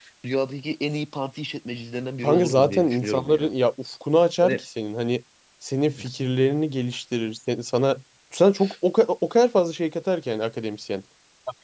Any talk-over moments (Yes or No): Yes